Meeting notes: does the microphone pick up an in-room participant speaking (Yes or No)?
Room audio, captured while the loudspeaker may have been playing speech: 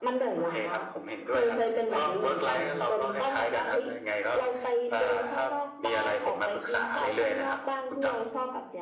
No